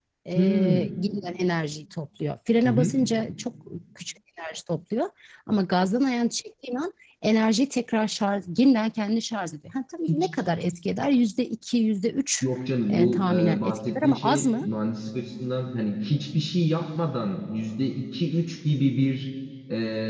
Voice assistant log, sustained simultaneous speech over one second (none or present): present